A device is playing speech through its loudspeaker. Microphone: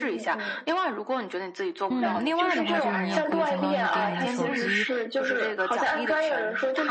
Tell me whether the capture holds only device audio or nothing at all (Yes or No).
No